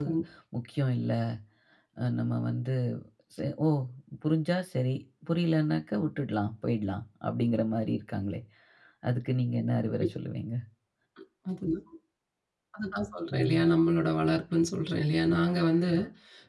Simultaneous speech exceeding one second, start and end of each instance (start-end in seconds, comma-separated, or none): none